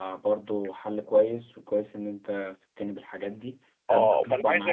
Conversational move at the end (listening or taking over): taking over